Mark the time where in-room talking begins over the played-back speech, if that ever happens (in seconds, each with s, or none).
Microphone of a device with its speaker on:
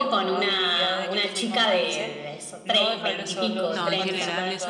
3.7 s